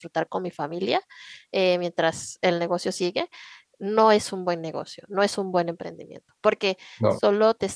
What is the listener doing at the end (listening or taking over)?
listening